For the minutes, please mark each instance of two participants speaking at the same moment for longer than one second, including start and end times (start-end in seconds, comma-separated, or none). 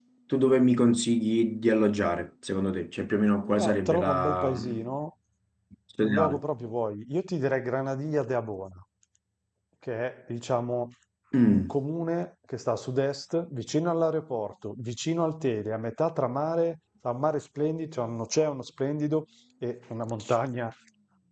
3.5-4.9